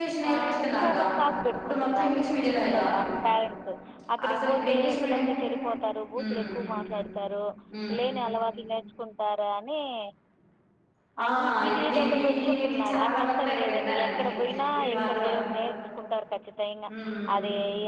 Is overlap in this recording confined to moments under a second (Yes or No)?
No